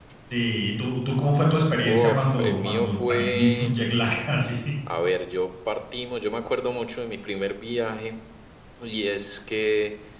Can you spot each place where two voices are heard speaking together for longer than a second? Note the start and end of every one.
1.9-3.7

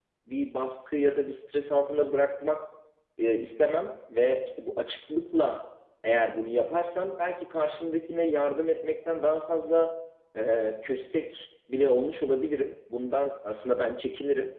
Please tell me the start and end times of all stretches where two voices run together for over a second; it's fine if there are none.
none

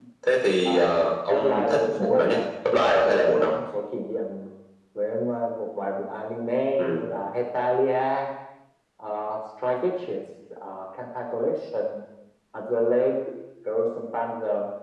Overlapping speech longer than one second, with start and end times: 1.3-3.6

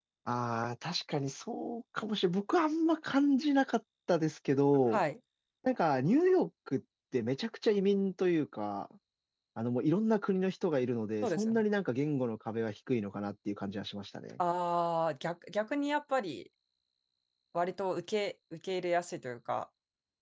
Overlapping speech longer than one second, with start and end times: none

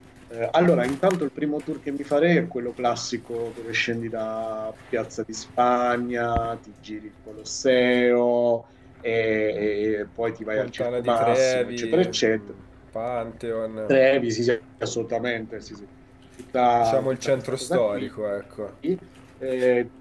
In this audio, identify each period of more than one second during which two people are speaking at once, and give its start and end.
10.6-12.4, 16.8-18.1

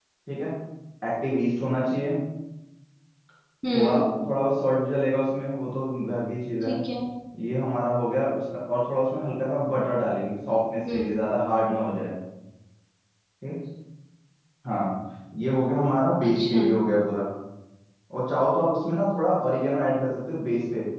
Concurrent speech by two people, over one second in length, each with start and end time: none

